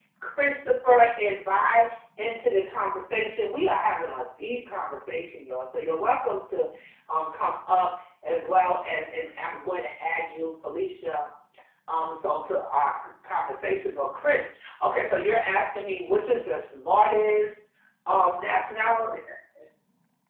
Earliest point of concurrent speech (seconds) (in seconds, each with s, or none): none